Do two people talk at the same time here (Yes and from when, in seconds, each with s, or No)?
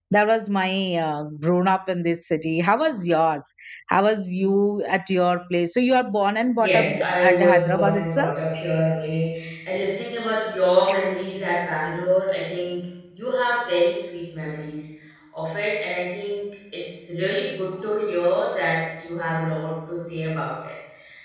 Yes, from 6.6 s